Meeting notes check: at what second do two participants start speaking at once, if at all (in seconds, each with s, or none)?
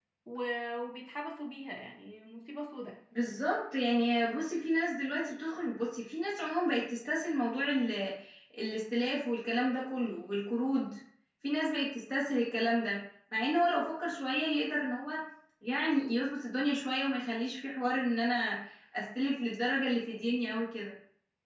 none